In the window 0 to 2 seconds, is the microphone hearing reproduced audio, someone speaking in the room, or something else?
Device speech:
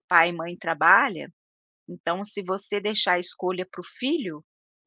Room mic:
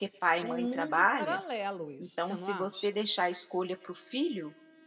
both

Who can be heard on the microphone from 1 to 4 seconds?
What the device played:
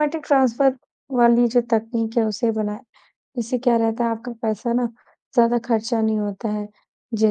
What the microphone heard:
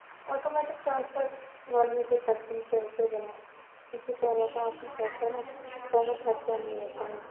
echo only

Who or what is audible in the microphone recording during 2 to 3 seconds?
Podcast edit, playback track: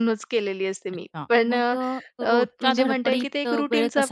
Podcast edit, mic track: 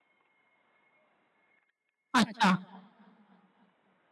user only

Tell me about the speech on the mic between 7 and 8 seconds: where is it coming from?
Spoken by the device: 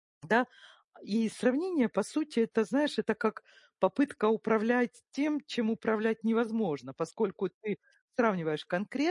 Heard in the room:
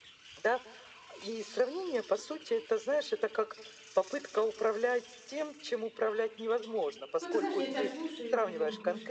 both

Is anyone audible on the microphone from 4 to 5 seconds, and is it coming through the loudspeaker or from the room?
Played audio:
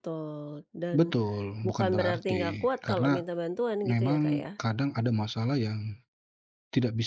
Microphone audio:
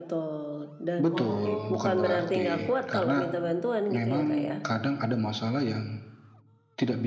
echo only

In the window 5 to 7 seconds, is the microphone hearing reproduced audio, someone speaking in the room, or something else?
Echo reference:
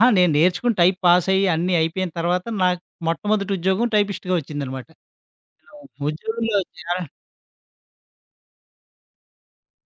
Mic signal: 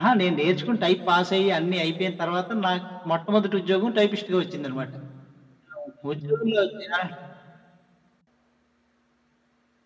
echo only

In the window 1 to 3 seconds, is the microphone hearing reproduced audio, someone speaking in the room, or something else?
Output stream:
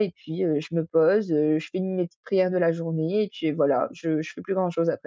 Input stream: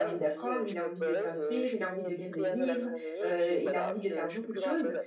both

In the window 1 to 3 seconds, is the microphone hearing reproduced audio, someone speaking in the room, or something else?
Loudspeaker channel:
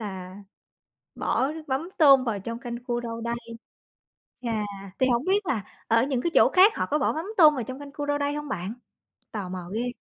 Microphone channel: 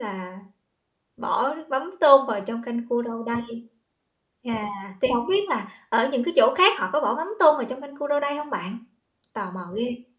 echo only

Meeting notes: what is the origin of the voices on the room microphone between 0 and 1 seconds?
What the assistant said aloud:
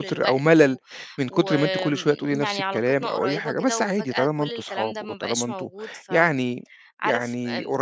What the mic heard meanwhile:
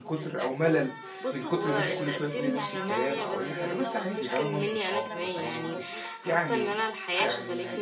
echo only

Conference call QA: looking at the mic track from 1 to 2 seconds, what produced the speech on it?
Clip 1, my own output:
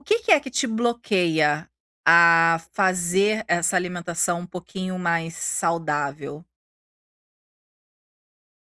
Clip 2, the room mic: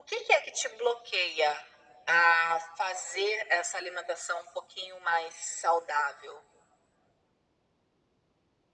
echo only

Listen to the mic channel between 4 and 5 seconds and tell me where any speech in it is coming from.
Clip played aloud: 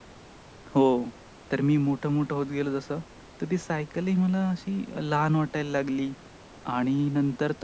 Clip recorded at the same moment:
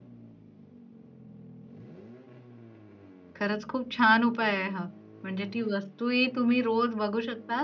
user only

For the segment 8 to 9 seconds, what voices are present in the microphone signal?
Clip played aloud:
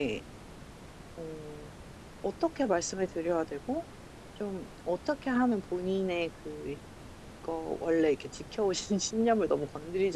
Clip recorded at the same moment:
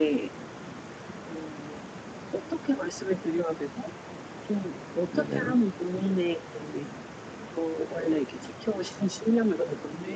echo only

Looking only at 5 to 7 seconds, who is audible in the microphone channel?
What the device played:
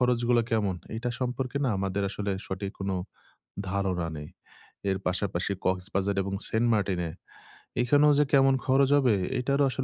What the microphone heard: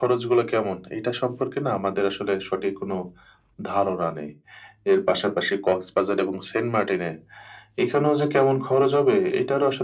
echo only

